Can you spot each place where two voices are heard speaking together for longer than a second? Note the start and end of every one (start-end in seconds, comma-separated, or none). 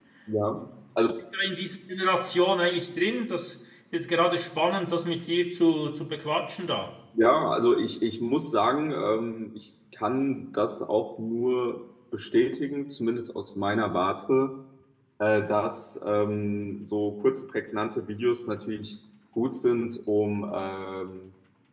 none